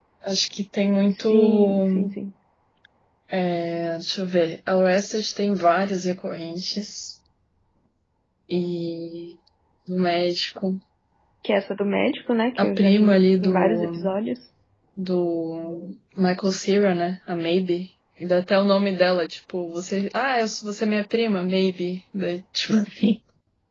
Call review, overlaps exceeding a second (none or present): present